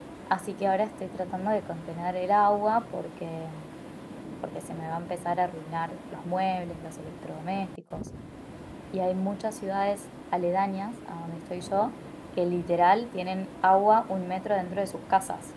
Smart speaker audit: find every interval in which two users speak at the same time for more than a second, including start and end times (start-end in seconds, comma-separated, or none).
none